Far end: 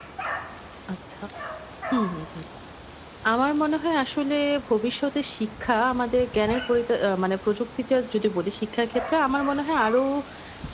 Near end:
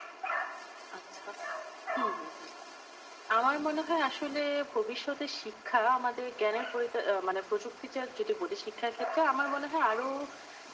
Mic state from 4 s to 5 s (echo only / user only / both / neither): echo only